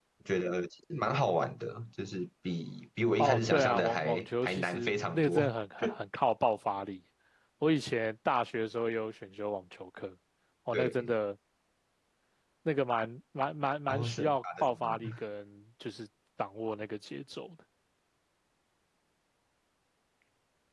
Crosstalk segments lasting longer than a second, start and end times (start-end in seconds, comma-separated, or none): 3.2-5.4, 13.9-15.1